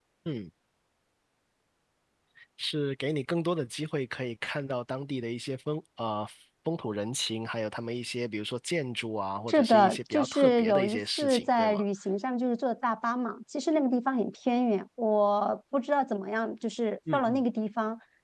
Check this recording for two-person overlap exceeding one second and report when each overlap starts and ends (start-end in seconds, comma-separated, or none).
9.5-11.8